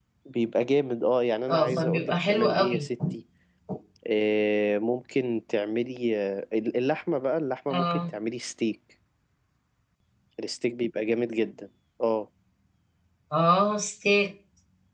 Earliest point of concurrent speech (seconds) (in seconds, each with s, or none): 1.5 s